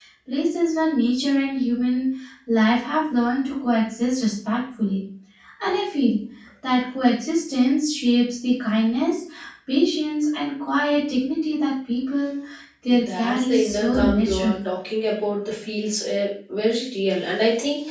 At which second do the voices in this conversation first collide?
13.1 s

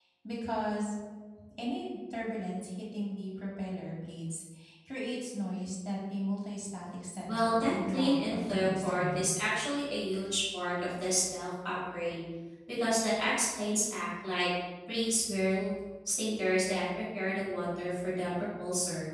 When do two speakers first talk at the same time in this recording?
7.3 s

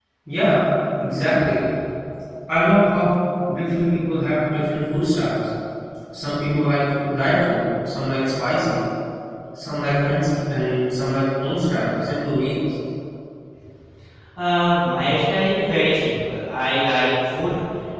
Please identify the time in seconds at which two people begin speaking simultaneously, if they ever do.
none

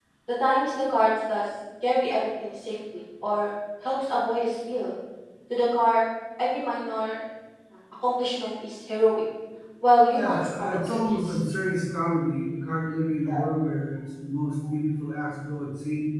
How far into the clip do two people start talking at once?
10.1 s

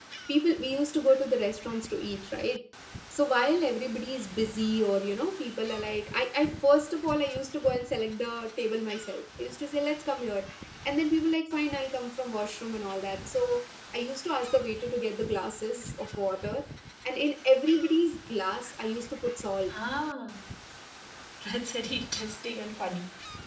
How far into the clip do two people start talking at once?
none

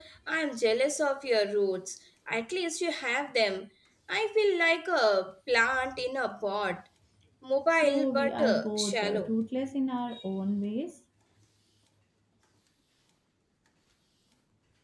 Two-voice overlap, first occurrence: 7.7 s

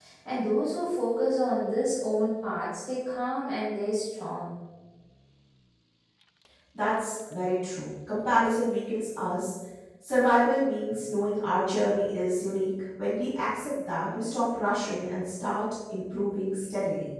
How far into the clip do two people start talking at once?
none

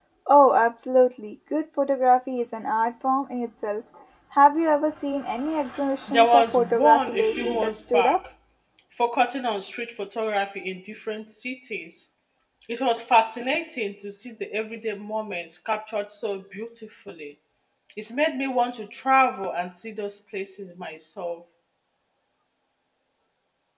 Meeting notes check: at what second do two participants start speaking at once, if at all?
6.1 s

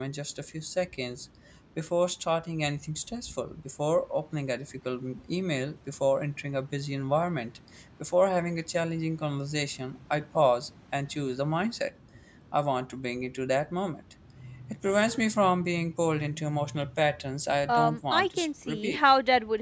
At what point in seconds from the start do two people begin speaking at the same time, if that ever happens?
17.7 s

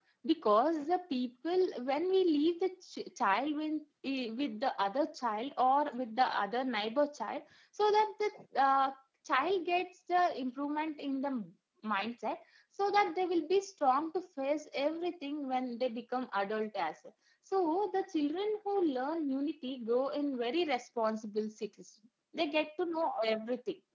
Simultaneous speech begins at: none

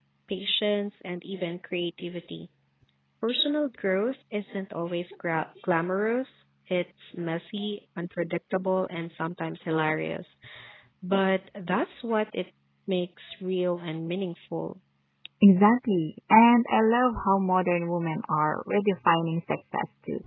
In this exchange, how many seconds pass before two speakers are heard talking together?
none

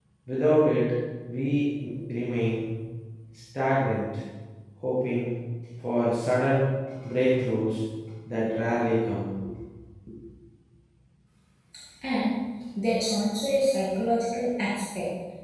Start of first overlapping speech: none

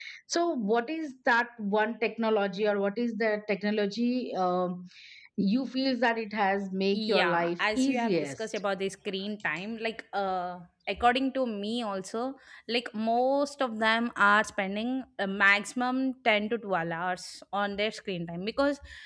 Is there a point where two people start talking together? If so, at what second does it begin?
6.9 s

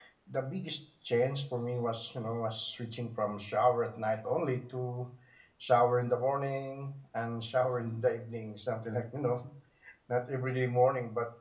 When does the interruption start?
none

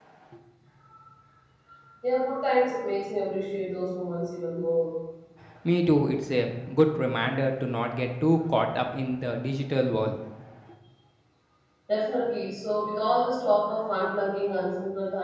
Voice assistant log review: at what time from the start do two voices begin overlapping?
none

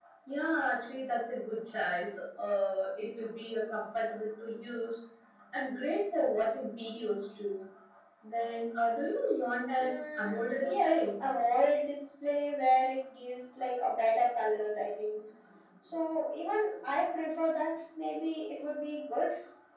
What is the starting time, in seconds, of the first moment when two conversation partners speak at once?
9.8 s

